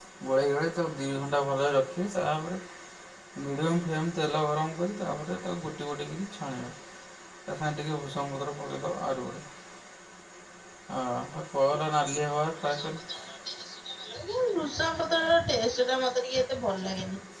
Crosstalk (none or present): none